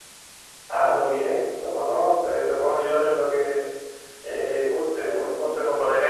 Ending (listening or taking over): listening